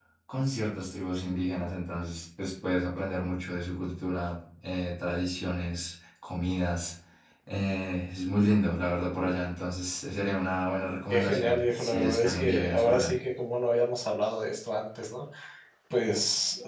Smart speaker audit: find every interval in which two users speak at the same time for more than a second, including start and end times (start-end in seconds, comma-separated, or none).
11.1-13.2